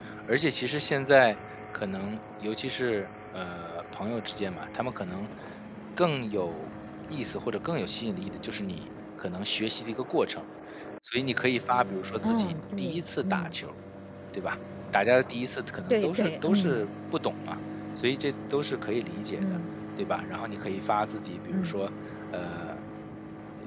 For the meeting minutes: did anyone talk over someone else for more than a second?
Yes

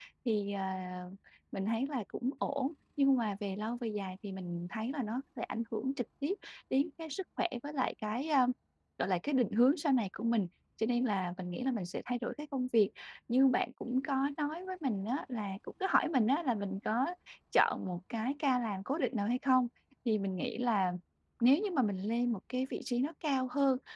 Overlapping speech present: No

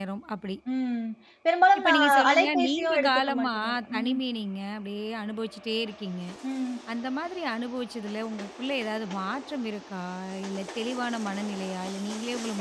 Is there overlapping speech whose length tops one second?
Yes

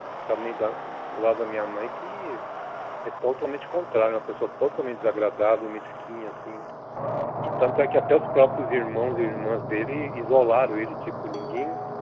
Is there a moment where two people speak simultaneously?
No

